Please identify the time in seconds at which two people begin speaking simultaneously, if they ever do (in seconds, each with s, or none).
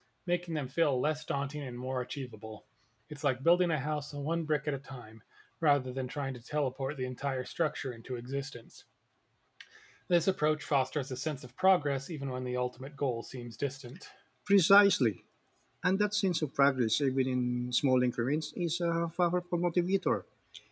none